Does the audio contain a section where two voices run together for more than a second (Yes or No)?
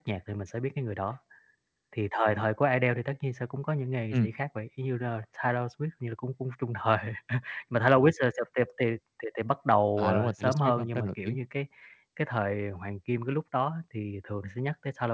Yes